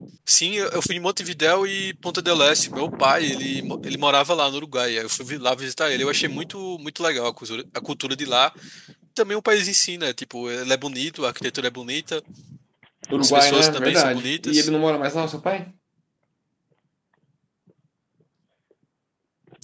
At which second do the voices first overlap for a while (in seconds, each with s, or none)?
13.2 s